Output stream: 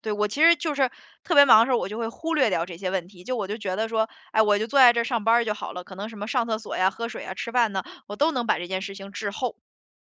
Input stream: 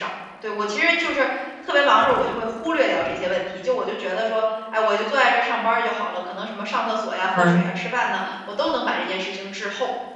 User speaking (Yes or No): Yes